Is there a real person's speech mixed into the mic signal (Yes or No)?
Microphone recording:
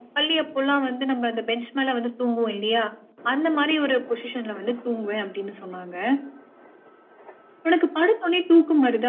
No